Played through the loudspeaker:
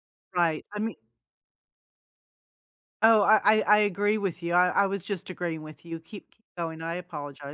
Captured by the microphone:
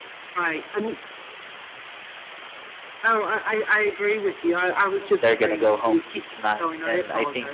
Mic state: both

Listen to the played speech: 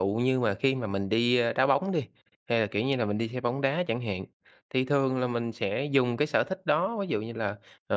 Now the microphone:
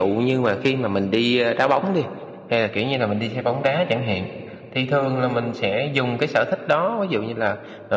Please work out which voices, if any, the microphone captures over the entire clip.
echo only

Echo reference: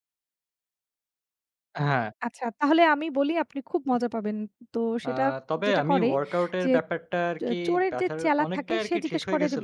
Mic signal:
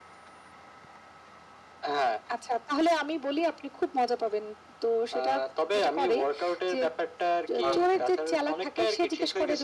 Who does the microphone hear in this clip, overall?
both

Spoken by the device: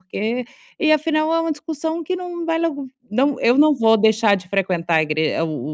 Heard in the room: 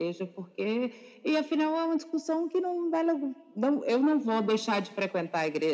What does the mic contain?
echo only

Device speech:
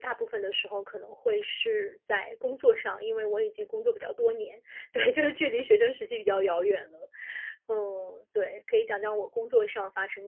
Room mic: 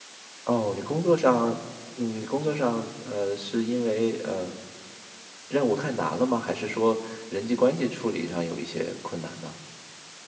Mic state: user only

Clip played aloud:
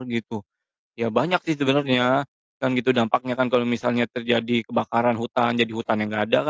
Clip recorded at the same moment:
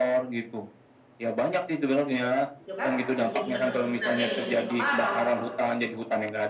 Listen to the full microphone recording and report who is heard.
both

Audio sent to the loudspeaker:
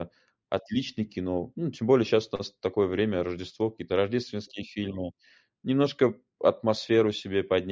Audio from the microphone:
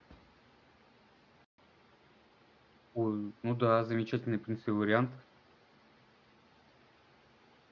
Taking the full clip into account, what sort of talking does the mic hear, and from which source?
user only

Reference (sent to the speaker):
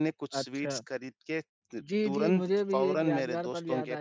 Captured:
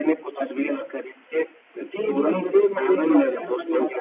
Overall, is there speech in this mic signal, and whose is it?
echo only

